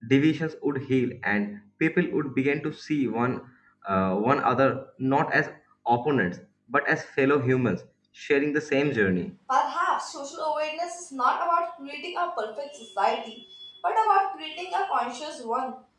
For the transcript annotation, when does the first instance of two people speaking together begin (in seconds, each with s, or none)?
none